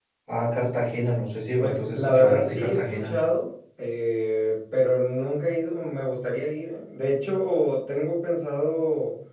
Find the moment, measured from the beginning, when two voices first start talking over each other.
1.6 s

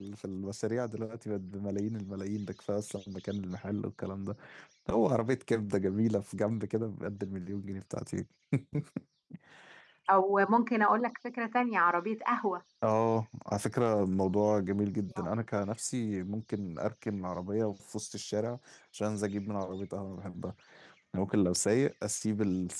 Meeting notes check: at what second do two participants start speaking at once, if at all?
none

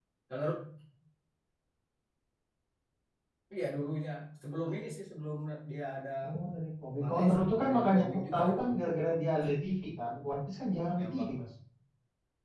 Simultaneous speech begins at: 7.0 s

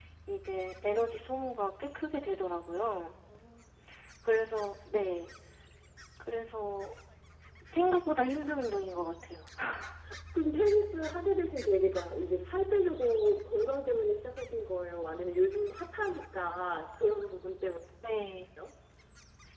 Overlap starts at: none

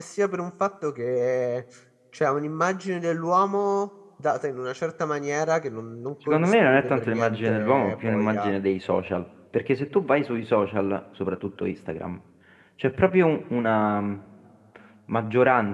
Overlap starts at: 6.3 s

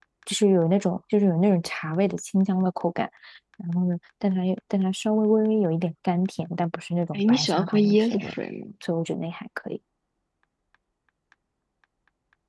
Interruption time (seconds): 7.1 s

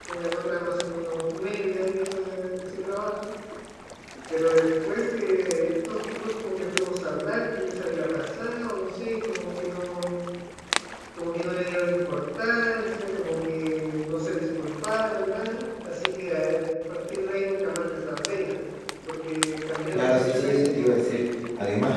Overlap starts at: 19.9 s

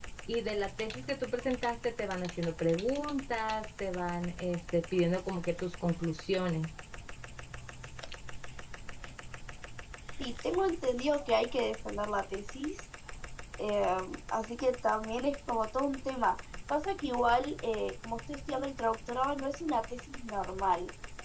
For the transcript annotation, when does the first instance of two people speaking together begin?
none

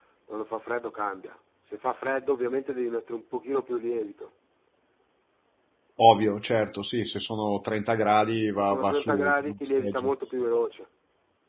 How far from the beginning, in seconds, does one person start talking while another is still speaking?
8.6 s

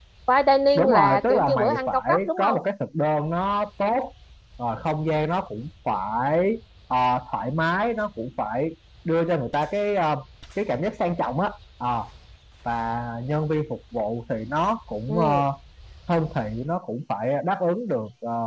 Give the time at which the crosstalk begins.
0.8 s

